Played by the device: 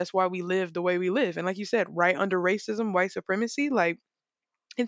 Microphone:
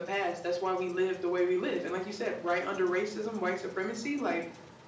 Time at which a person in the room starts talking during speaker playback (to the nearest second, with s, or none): none